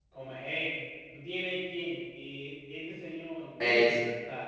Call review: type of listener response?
taking over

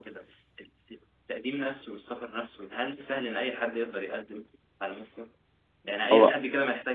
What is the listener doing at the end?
listening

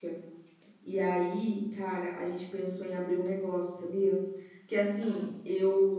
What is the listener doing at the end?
listening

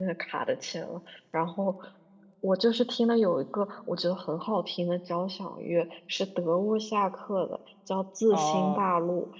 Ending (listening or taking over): listening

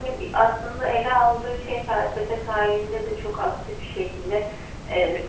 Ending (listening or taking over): listening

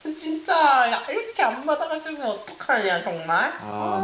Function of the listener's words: taking over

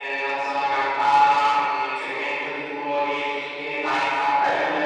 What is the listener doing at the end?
listening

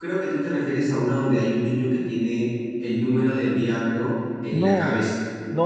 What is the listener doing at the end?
taking over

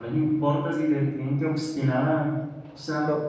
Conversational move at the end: listening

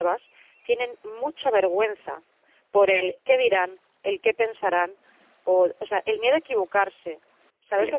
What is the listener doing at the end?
taking over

